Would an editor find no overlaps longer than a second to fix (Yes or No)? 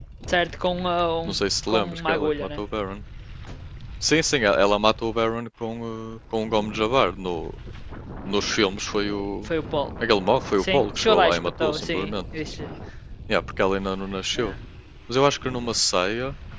No